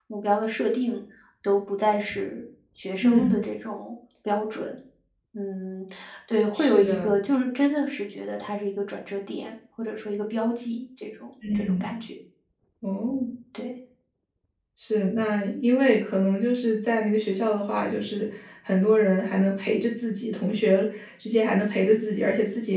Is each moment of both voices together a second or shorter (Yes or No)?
Yes